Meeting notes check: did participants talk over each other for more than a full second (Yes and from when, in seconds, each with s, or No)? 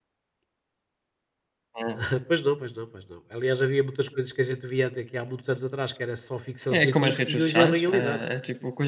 Yes, from 6.7 s